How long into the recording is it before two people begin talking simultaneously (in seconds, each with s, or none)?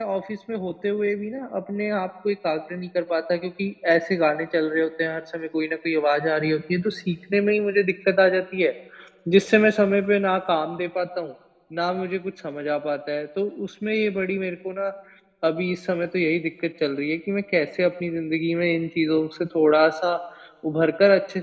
none